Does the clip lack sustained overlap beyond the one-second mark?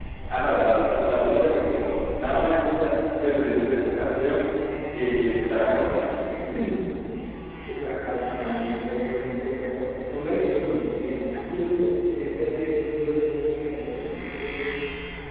Yes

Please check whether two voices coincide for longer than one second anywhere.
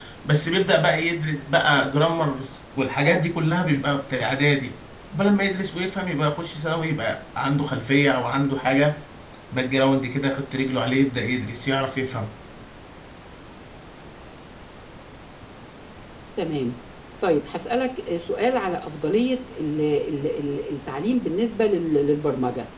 No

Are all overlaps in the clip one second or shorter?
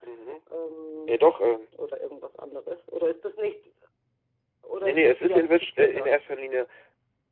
No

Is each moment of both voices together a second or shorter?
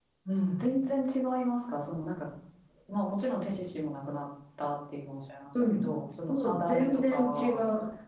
No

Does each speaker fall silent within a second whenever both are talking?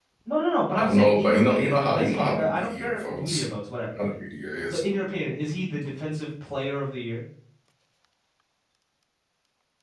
No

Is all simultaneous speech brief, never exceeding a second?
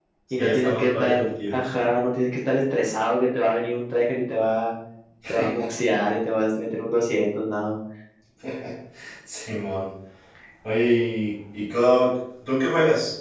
No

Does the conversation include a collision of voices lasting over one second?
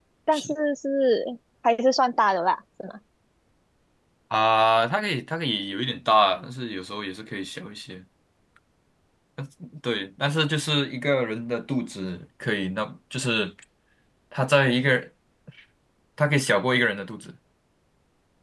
No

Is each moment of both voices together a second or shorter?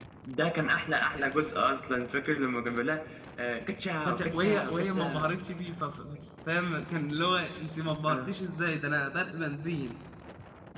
No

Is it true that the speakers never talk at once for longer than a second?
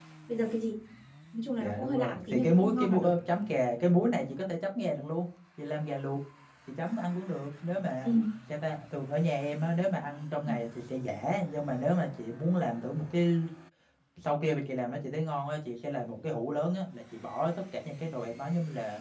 No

